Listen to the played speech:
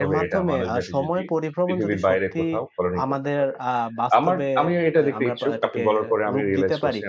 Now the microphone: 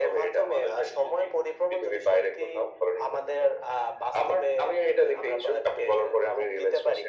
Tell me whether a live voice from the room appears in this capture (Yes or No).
No